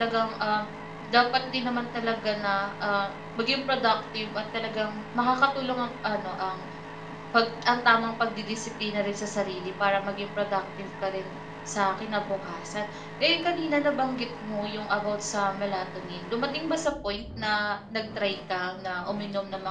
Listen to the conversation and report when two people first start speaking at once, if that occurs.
none

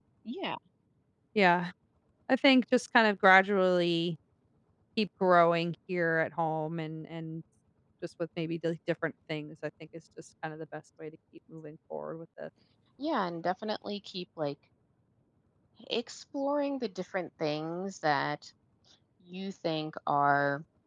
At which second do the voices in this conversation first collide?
none

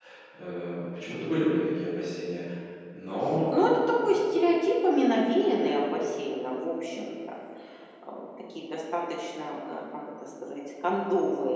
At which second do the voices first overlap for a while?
none

